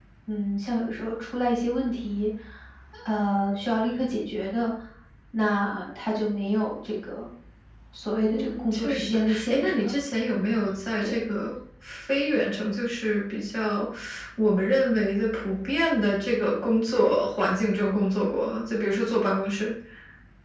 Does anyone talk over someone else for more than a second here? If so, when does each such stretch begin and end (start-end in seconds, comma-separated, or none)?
8.3-9.9